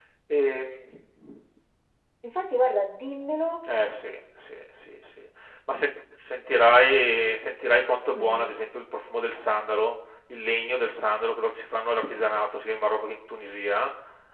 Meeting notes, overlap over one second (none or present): none